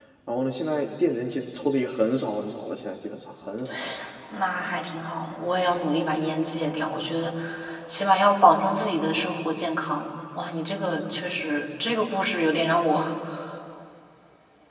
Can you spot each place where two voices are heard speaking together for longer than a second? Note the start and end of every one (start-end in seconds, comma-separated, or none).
none